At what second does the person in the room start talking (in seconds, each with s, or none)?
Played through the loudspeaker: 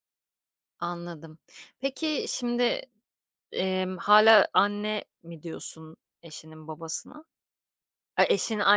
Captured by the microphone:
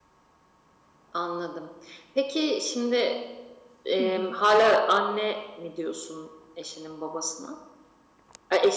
4.0 s